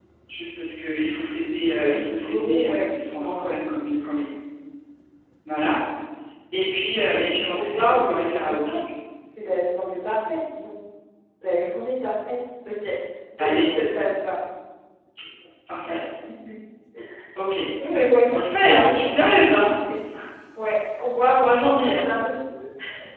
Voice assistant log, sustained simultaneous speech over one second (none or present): present